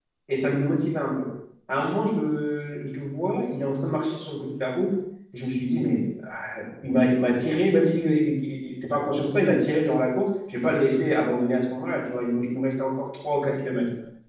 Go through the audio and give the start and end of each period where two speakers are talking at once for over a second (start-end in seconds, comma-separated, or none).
none